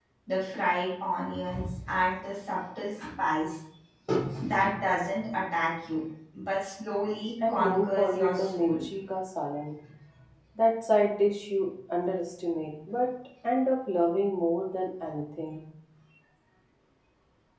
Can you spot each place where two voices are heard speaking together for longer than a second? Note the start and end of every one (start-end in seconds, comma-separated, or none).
7.5-8.8